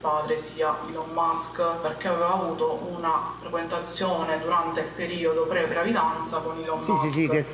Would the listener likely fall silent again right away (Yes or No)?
No